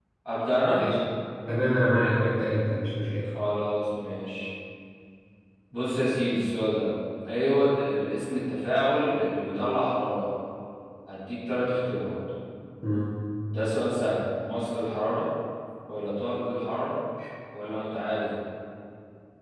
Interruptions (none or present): none